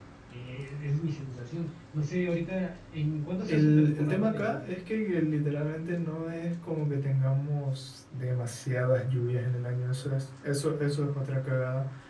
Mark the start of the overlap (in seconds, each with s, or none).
3.5 s